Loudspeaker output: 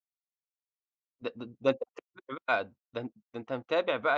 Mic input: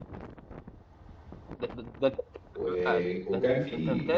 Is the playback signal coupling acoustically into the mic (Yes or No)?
Yes